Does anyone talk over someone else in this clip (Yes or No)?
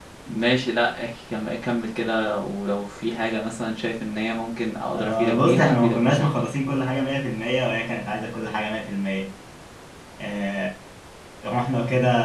Yes